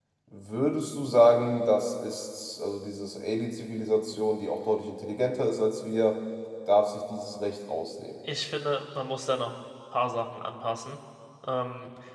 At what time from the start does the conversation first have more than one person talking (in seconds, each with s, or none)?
none